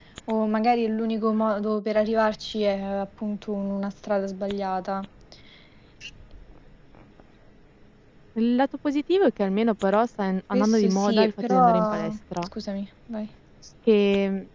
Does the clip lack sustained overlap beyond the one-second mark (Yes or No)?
No